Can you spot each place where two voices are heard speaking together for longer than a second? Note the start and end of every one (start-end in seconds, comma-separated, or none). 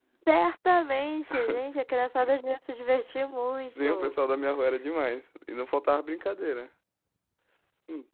none